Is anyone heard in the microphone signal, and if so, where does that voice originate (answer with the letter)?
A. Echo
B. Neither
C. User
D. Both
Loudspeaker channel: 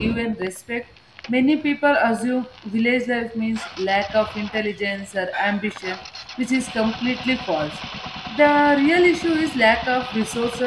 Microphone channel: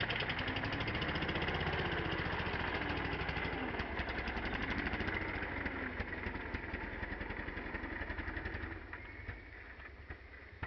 B